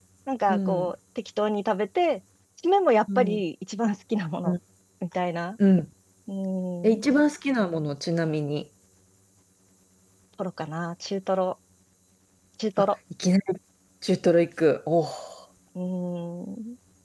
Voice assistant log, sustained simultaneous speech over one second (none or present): none